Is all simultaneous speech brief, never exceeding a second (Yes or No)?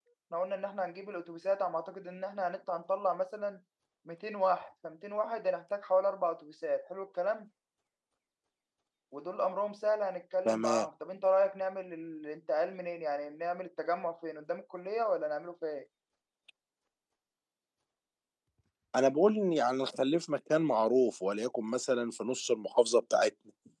Yes